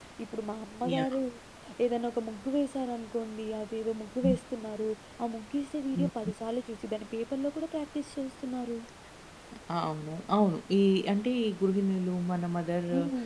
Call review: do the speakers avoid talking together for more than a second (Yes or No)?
Yes